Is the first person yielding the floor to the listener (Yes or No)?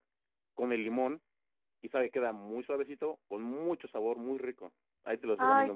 Yes